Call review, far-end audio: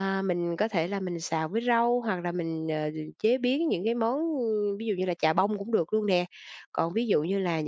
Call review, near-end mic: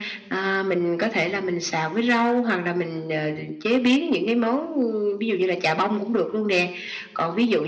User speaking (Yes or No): No